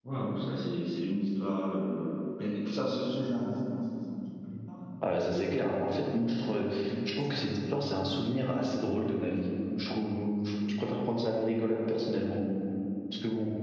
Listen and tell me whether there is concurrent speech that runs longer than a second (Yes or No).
No